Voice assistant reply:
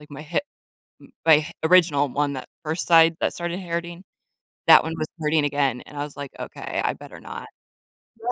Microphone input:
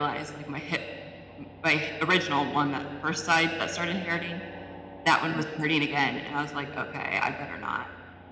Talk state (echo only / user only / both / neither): echo only